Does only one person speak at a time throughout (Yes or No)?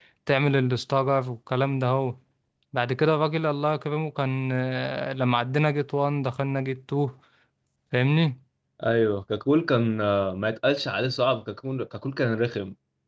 Yes